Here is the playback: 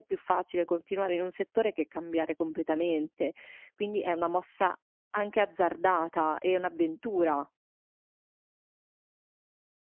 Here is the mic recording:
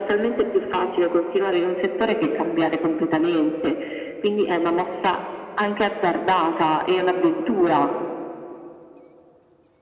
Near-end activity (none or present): none